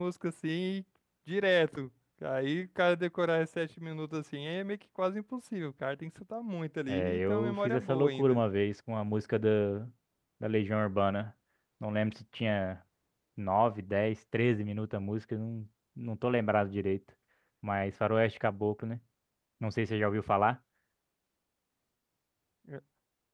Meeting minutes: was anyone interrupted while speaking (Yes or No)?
Yes